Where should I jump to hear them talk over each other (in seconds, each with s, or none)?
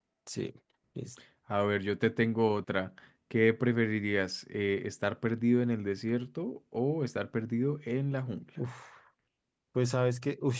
none